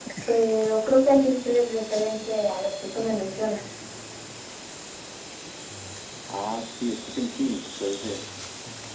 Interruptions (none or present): none